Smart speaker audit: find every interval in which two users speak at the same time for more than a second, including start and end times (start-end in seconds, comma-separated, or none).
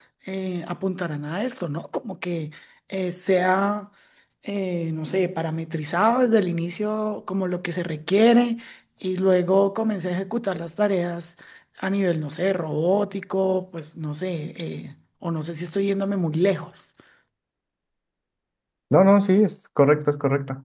none